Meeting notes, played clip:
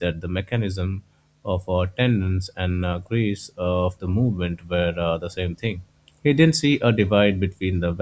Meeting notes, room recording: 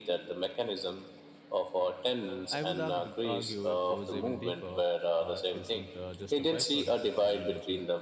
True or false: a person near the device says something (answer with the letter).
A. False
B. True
B